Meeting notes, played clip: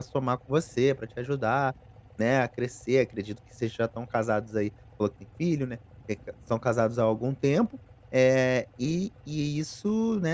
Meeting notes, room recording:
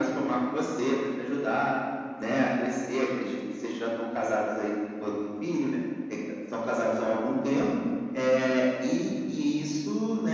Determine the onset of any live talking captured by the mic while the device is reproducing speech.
none

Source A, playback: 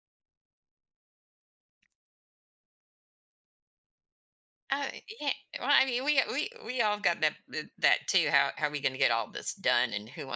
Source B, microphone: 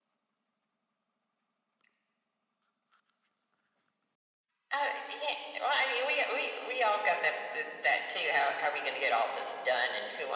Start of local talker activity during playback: none

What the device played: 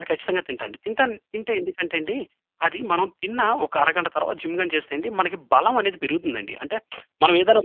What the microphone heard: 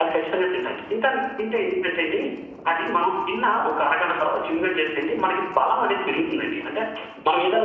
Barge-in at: none

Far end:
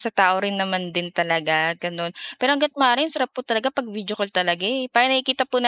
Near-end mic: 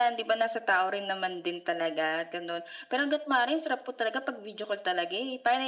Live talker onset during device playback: none

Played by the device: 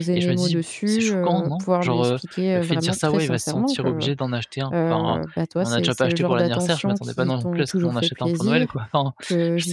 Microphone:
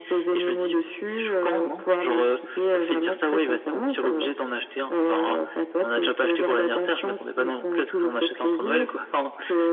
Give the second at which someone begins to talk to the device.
none

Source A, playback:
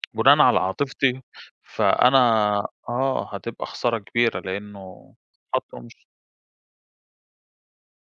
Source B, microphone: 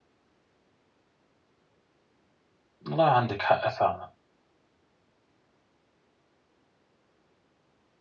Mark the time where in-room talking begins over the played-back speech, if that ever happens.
2.9 s

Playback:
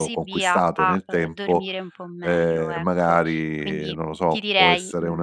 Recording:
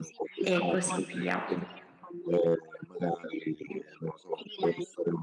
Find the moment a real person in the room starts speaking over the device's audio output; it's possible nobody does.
0.4 s

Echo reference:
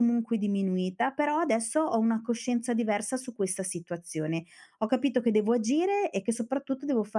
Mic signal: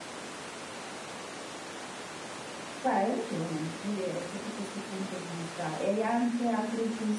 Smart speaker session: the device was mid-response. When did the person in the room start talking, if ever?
2.8 s

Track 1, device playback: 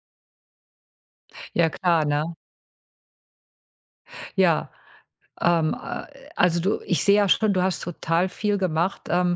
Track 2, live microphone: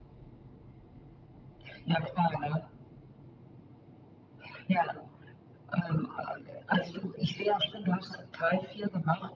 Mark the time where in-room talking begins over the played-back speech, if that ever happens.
none

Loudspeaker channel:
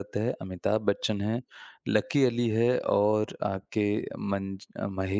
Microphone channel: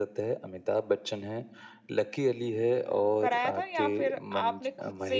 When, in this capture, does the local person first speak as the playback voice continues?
3.2 s

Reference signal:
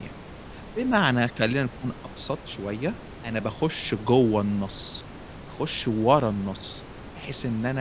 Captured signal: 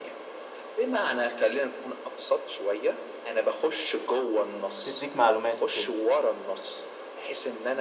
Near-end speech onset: 4.8 s

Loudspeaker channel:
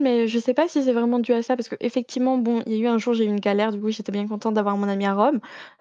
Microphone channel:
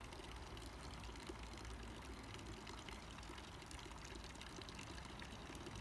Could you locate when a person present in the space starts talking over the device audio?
none

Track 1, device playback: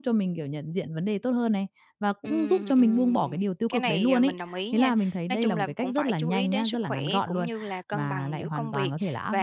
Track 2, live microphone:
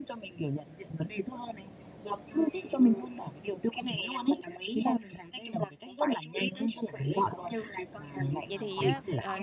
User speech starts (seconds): 8.5 s

